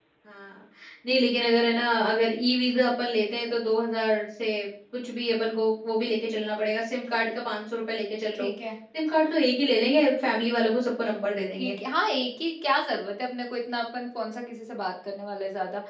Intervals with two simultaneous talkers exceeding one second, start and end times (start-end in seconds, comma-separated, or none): none